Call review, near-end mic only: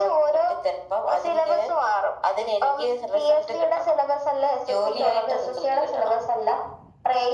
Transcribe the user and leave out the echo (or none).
none